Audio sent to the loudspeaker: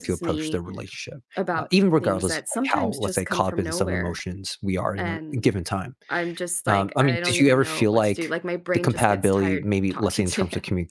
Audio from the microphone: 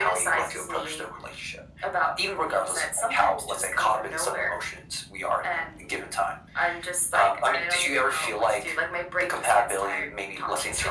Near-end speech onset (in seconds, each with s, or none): none